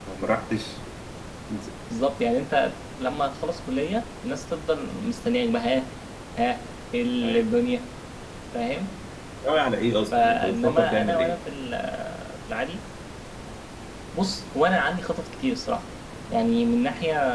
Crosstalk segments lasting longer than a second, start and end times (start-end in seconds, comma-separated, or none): 10.1-11.4